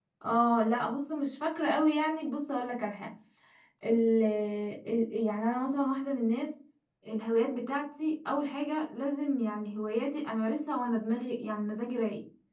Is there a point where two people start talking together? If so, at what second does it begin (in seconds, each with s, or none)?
none